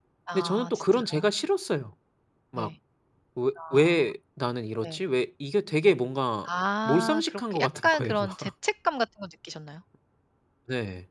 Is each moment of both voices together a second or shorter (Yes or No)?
No